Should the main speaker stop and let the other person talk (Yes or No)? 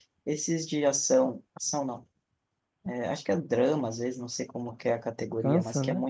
No